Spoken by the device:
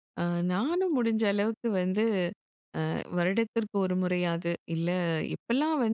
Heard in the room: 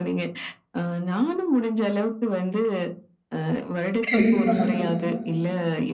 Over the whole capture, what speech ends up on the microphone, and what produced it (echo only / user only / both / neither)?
both